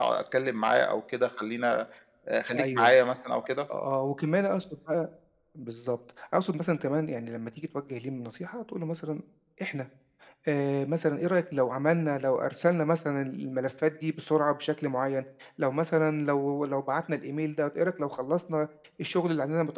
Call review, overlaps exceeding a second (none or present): none